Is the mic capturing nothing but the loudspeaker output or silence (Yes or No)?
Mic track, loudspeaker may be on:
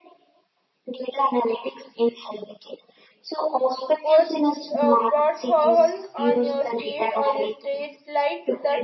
No